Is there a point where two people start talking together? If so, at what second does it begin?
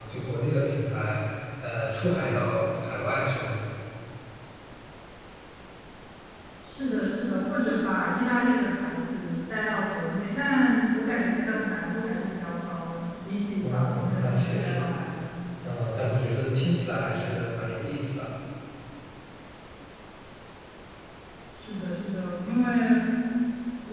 14 s

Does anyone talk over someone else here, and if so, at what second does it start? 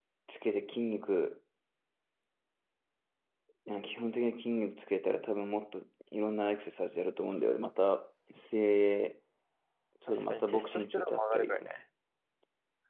10 s

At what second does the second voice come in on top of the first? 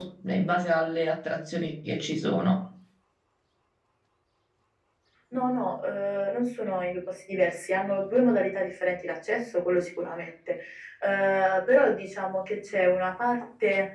none

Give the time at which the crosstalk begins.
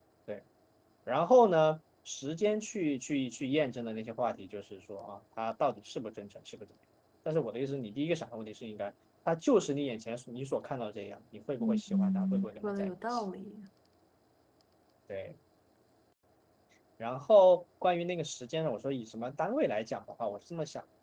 12 s

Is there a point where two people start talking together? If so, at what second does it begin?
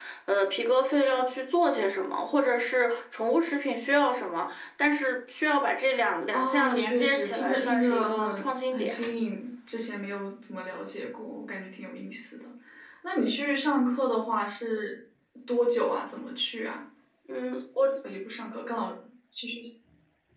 6 s

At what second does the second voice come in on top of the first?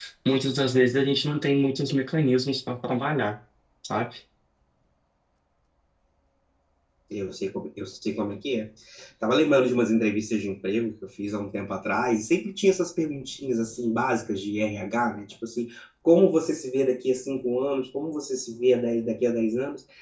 none

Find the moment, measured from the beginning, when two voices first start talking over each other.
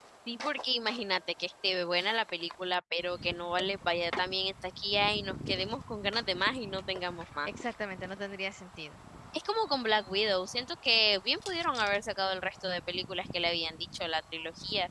none

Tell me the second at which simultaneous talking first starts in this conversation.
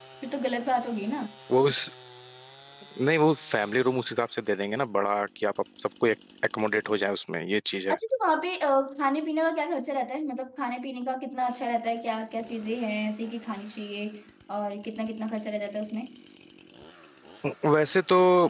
none

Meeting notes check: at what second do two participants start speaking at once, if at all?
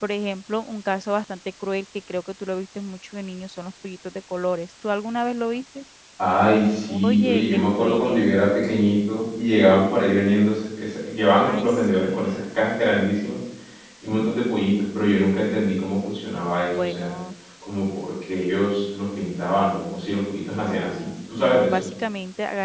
7 s

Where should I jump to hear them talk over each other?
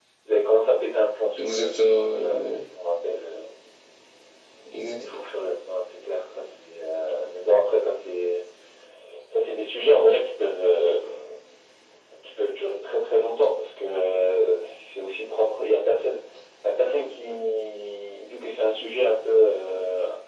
1 s

